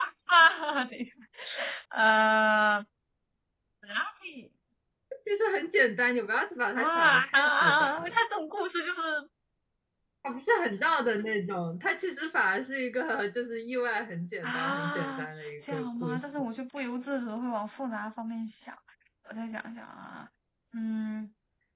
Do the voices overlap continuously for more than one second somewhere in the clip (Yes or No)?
Yes